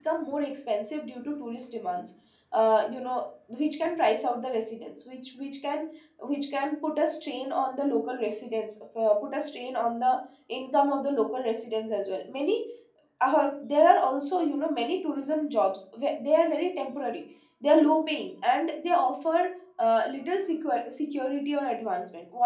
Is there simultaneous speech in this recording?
No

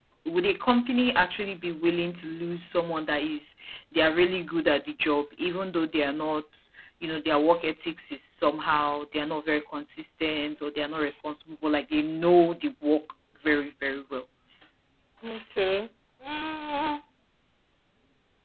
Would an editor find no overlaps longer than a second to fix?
Yes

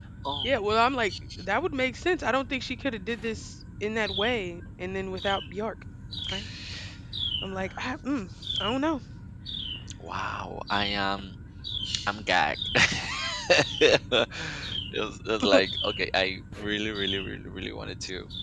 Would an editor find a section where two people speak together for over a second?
No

